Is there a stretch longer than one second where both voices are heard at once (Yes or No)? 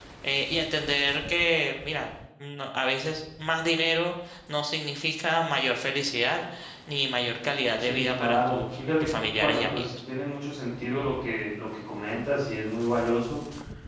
Yes